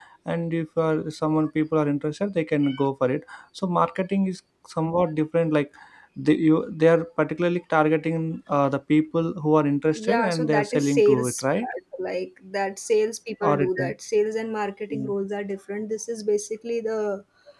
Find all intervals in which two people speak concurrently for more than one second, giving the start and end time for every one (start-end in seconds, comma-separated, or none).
9.9-11.7